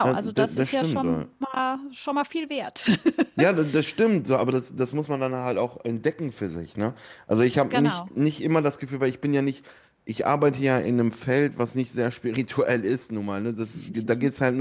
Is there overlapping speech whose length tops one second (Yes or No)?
Yes